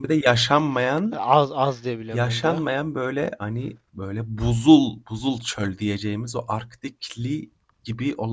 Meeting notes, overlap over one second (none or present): none